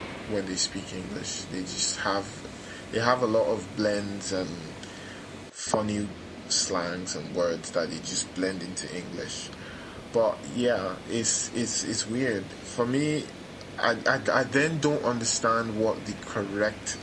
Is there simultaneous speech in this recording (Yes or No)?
No